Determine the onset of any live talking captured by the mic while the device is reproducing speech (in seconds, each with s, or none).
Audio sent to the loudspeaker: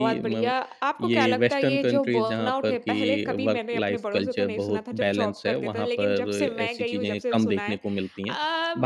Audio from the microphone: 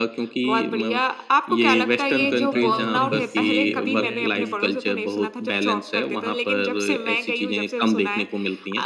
2.2 s